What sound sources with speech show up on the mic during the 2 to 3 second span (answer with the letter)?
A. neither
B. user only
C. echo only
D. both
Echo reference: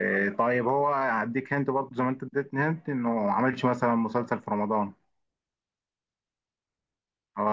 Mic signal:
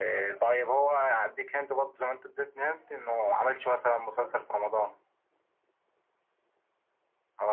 C